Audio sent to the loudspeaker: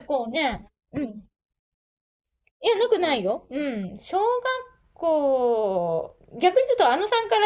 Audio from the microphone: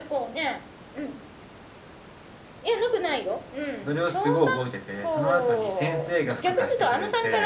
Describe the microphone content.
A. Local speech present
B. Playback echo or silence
A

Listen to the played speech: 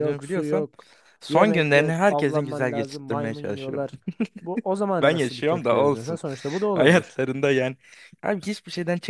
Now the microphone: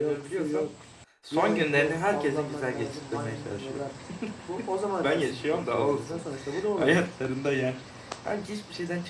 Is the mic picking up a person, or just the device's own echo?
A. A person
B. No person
B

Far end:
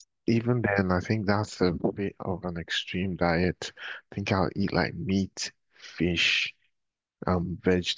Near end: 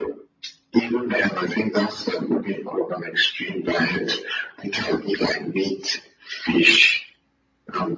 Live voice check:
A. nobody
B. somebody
A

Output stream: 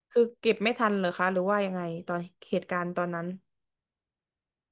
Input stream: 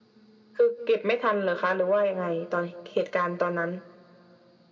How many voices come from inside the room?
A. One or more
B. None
B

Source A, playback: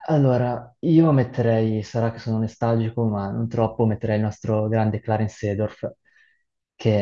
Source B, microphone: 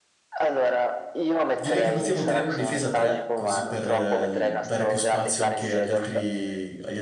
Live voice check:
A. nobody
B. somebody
B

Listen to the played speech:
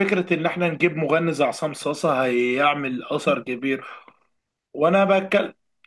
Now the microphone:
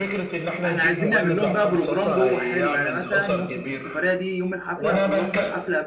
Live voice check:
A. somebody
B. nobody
A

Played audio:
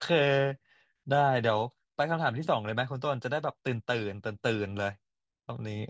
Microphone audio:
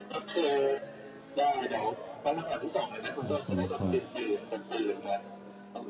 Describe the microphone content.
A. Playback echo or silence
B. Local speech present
B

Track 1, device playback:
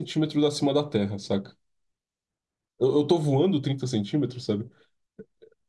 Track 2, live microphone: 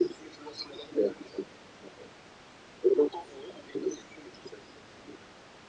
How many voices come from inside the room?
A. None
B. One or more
A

